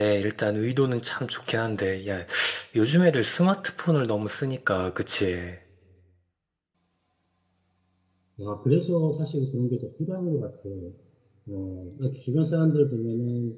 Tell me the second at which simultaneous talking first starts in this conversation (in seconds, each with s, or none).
none